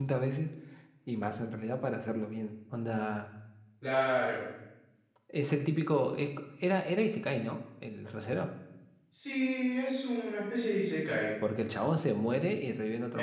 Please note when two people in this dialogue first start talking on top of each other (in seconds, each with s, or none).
none